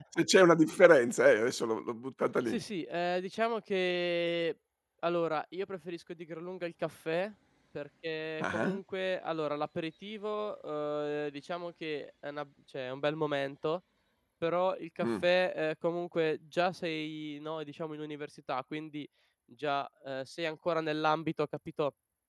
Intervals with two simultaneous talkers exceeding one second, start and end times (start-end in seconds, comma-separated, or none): none